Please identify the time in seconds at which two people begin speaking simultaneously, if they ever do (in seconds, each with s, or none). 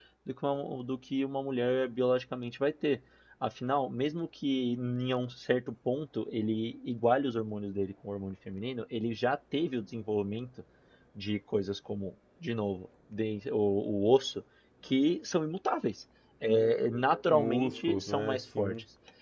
17.3 s